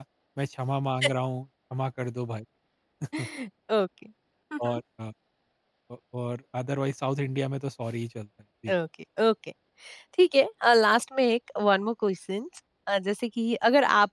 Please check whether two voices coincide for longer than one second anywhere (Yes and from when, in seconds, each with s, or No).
No